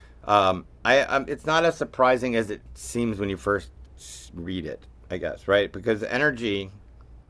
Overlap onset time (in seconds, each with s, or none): none